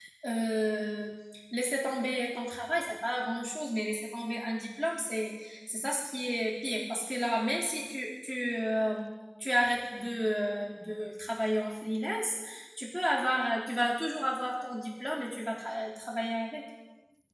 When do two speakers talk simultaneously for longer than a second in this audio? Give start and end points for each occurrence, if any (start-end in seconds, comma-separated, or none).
none